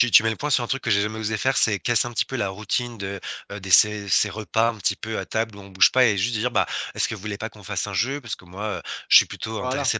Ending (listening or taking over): listening